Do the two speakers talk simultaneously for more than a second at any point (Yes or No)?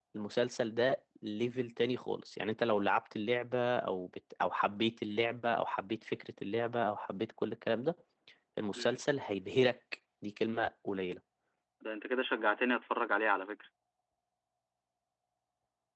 No